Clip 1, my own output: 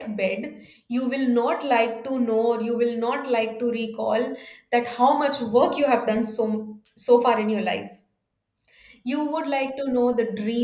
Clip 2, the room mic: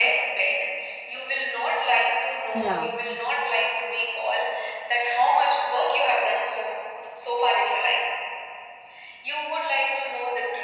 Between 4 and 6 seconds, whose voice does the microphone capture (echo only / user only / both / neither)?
echo only